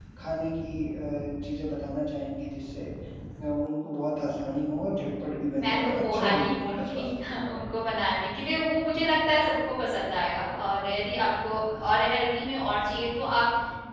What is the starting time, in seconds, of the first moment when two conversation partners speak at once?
5.5 s

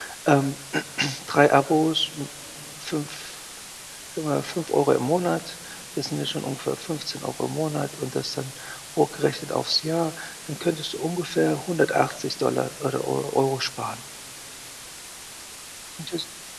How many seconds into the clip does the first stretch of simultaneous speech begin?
none

